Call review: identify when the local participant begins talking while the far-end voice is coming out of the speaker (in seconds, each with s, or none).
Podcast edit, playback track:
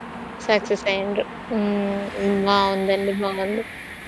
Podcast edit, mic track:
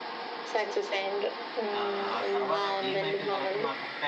1.8 s